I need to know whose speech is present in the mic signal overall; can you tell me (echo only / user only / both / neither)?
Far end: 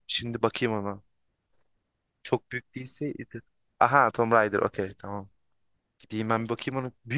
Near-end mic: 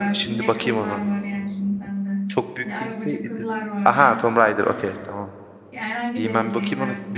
both